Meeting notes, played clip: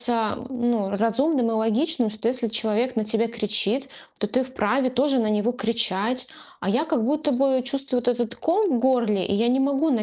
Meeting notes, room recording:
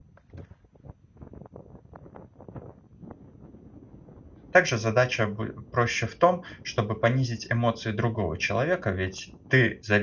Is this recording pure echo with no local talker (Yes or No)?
No